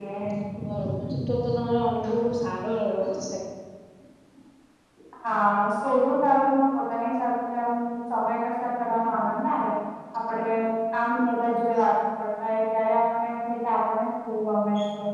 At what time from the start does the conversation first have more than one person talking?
none

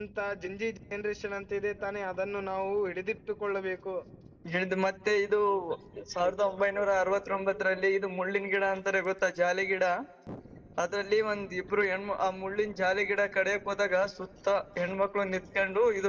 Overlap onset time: none

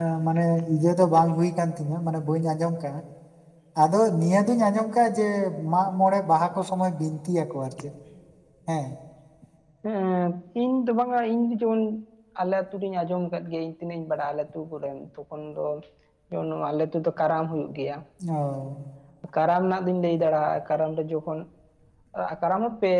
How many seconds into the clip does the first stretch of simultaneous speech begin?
none

